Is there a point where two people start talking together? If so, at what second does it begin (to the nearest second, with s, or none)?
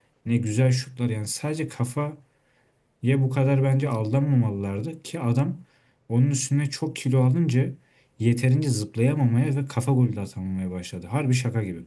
none